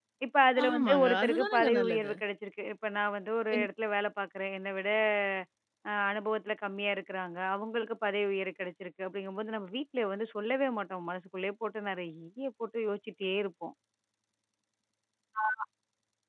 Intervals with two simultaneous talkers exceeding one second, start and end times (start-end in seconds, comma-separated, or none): 0.6-2.1